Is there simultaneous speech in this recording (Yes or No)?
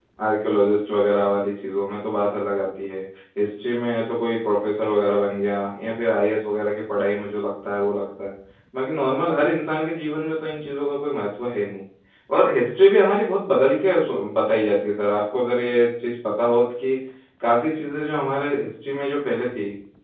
No